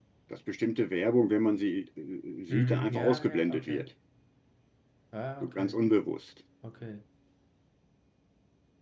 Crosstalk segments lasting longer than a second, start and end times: 2.5-3.9

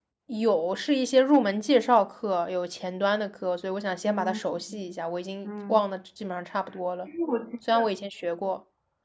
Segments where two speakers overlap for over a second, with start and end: none

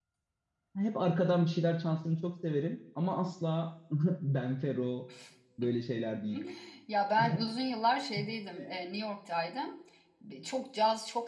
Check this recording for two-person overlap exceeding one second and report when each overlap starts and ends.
none

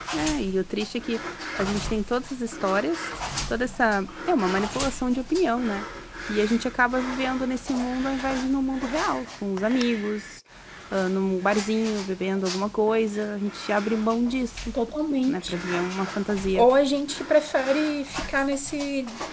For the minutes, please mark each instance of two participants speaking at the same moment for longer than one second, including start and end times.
none

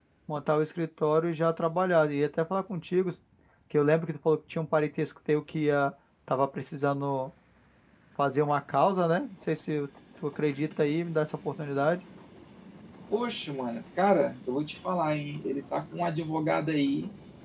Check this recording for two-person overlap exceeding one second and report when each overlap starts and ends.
none

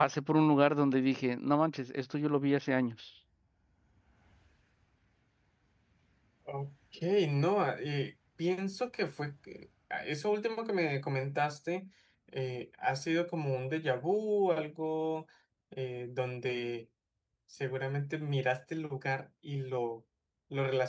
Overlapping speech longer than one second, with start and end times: none

